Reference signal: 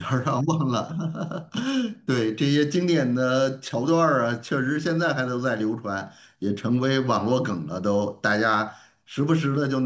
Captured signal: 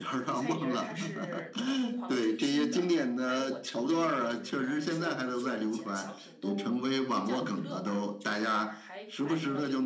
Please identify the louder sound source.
echo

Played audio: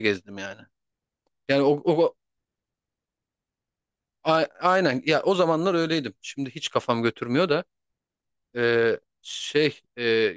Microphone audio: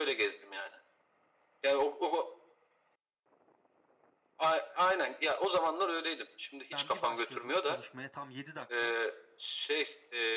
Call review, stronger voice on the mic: echo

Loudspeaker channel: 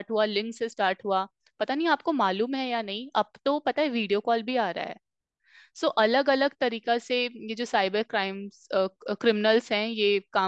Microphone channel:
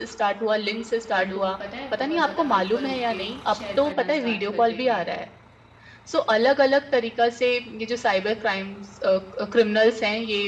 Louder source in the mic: echo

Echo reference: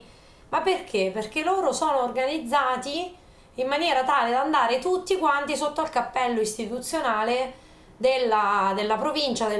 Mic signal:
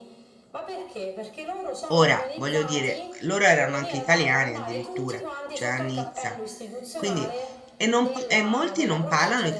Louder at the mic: user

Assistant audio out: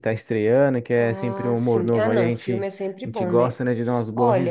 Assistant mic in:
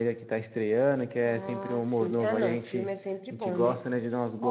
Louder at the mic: echo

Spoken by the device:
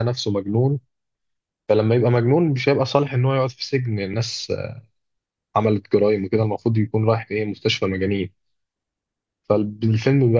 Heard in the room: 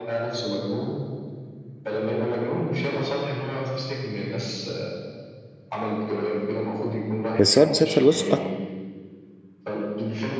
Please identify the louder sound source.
user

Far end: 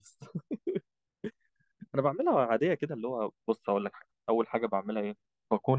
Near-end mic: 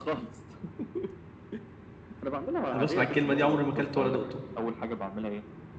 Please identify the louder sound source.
user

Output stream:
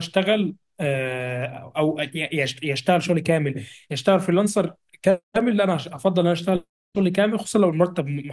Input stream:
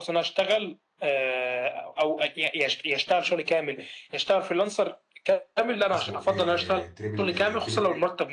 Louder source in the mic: echo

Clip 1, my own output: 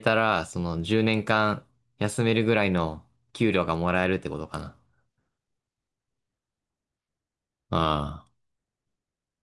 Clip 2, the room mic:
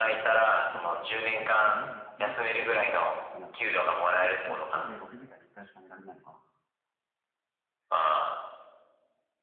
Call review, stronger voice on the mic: echo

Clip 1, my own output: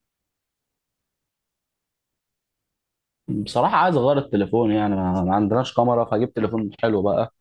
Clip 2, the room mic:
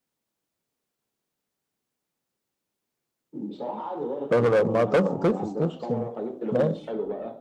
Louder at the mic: user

